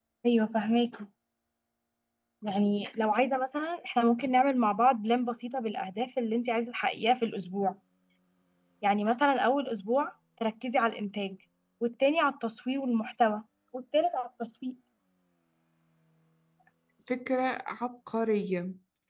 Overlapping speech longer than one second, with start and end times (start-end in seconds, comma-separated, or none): none